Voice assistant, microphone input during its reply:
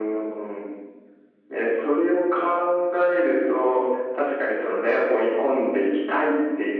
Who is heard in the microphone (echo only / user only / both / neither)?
echo only